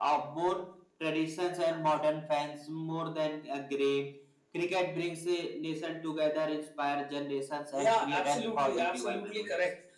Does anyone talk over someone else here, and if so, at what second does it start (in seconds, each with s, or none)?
7.7 s